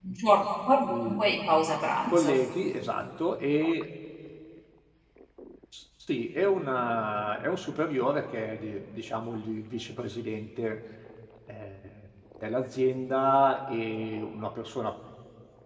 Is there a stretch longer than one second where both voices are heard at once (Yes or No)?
No